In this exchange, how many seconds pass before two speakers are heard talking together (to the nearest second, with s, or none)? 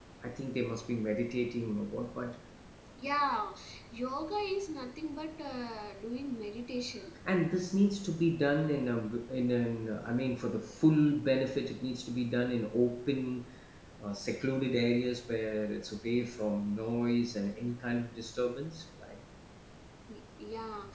none